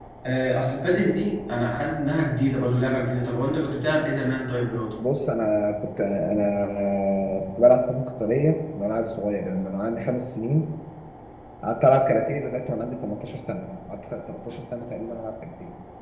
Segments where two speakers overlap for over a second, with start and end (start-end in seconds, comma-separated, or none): none